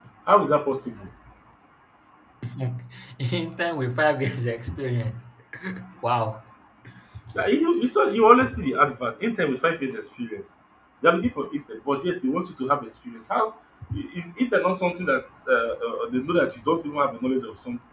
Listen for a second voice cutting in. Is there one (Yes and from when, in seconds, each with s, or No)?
No